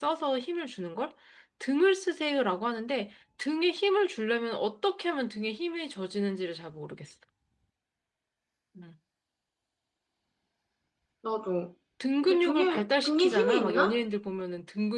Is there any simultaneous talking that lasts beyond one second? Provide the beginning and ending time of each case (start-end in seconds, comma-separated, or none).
12.2-14.0